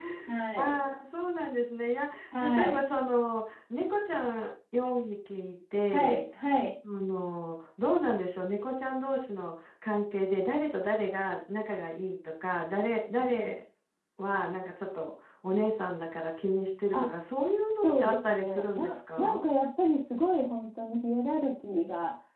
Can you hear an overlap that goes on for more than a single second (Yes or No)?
Yes